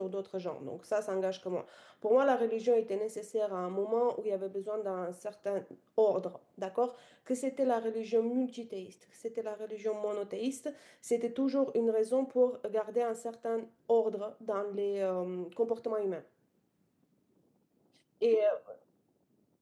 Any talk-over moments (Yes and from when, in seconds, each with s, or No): No